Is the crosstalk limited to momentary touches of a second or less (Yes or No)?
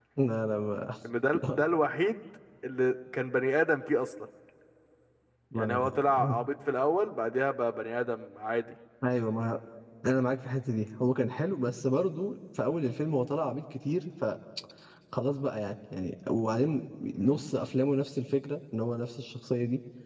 Yes